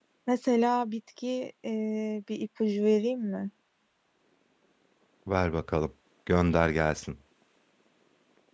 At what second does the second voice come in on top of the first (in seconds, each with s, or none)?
none